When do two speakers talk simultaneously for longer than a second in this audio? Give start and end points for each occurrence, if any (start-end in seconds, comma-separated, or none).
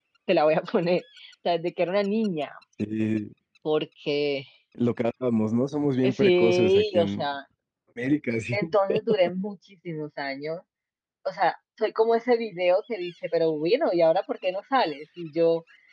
6.0-7.3